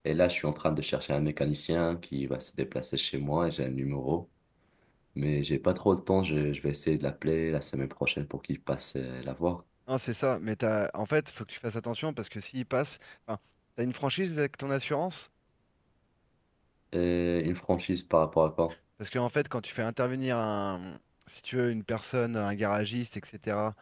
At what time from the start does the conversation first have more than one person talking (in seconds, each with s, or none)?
none